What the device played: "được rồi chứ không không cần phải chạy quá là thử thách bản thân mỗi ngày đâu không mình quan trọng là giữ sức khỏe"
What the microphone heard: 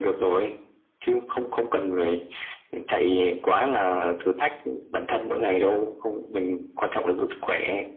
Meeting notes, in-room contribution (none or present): none